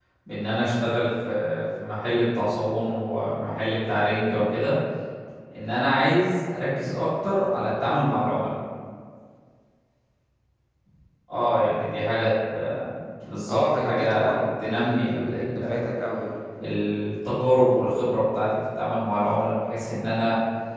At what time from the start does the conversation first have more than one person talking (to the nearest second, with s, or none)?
13 s